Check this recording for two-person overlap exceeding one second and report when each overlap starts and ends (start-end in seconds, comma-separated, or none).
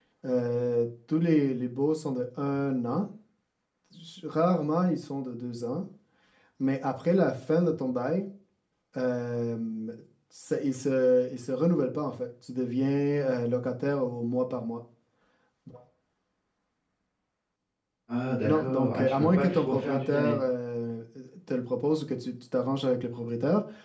18.4-20.4